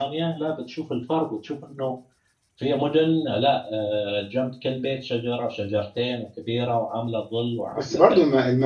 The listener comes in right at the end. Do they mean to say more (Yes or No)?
Yes